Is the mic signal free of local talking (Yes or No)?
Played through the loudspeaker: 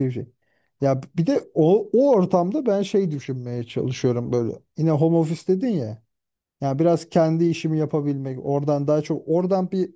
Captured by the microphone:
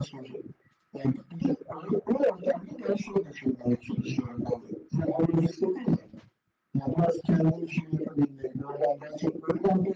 Yes